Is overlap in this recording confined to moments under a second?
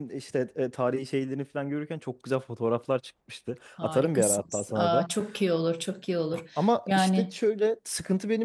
No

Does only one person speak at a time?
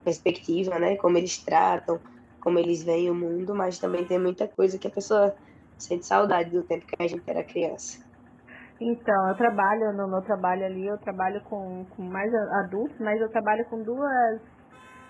Yes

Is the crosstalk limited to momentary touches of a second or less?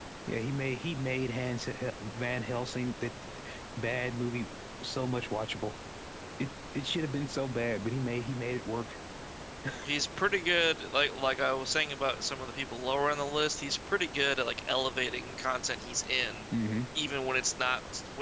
Yes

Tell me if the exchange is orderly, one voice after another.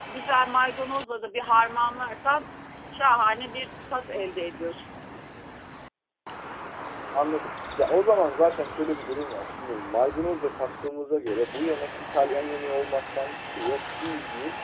Yes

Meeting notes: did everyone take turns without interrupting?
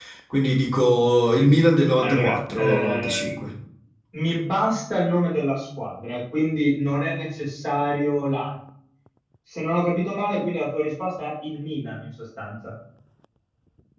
No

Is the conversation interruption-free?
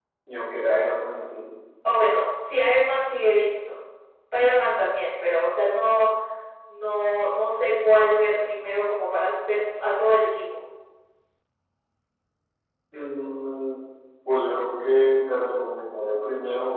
Yes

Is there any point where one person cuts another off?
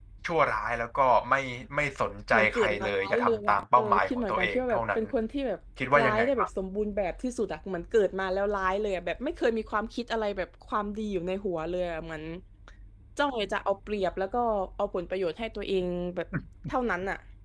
Yes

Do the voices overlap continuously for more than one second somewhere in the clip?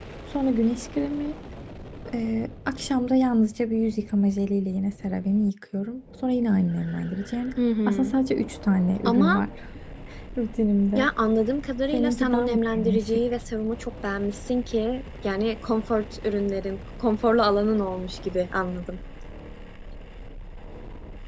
Yes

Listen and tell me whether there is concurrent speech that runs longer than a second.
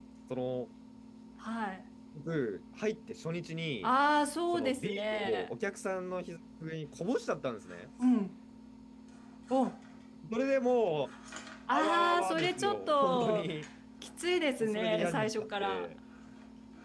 Yes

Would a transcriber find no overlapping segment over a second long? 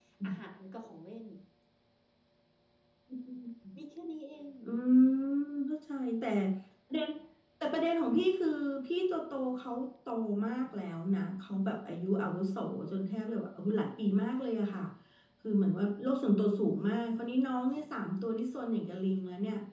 Yes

